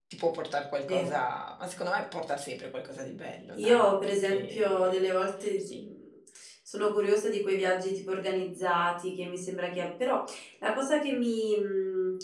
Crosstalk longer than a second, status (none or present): present